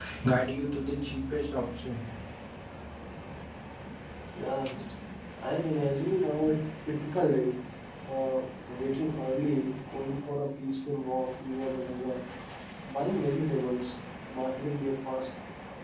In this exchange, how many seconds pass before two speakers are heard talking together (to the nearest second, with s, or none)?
none